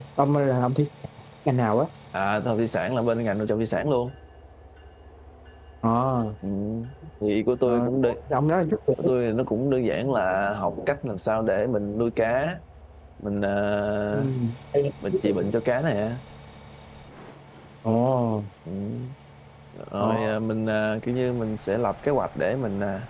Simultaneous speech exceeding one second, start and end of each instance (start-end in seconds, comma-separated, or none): none